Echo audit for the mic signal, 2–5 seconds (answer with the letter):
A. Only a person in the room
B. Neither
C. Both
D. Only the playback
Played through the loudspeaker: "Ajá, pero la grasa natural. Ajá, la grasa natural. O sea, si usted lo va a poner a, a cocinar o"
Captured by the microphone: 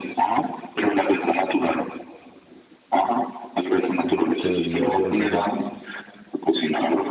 C